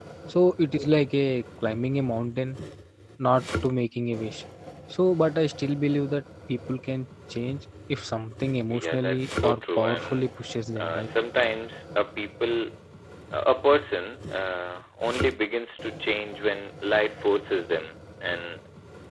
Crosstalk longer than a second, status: present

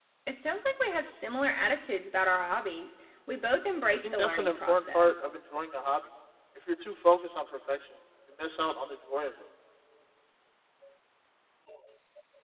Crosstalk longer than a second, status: present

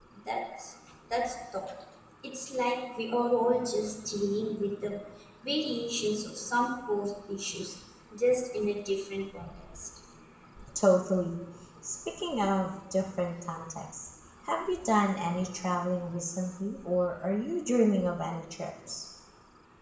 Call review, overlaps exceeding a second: none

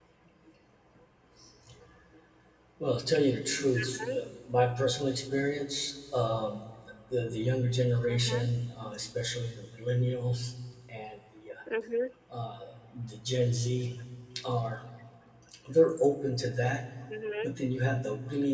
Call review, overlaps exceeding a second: none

